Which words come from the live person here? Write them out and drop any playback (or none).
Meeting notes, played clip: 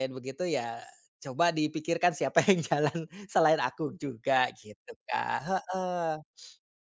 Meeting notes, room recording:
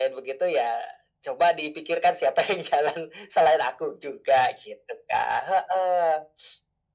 none